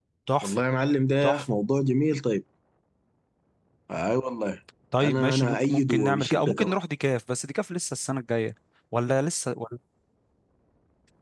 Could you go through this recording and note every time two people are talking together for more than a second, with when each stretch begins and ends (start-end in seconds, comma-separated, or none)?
5.0-6.8